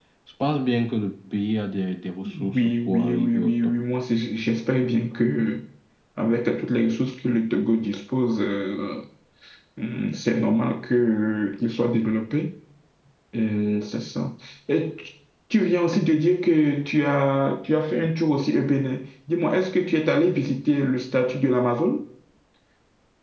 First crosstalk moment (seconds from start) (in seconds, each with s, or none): 2.5 s